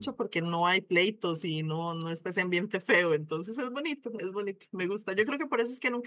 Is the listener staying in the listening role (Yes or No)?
Yes